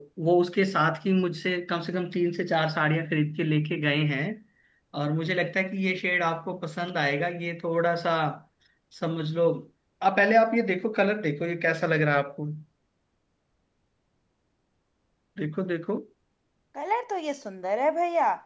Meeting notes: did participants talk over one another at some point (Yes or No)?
No